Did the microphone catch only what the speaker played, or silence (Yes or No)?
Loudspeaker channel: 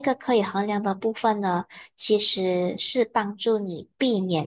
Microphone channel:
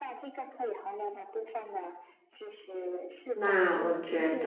No